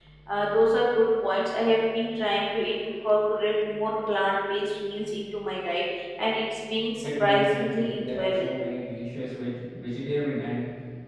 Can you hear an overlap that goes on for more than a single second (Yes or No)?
Yes